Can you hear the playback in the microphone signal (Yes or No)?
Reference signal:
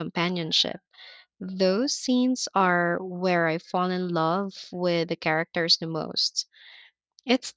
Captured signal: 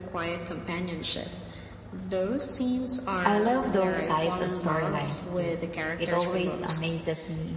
Yes